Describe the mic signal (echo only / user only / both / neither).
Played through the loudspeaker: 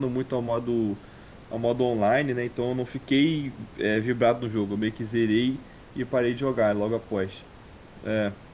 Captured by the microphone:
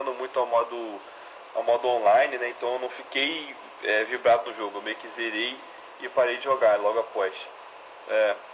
echo only